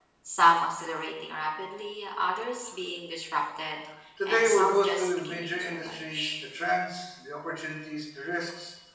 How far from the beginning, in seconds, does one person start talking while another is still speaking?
4 s

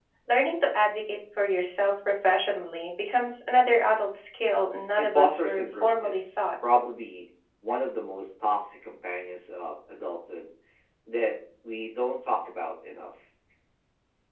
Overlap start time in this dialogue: 5 s

